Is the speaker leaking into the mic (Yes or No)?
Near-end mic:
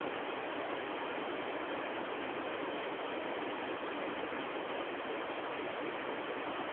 No